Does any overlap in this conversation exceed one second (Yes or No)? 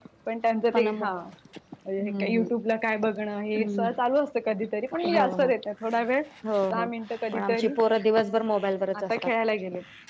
No